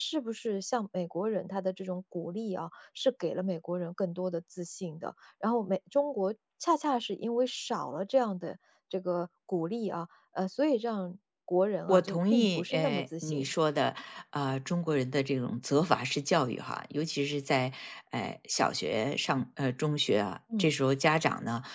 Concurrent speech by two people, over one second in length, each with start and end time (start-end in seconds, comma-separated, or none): 11.9-13.4